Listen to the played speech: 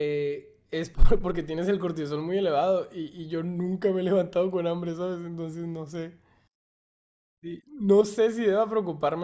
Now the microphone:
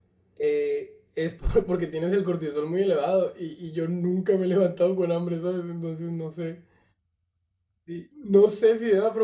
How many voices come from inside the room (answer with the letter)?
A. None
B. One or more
A